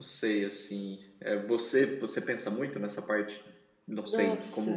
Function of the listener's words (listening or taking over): listening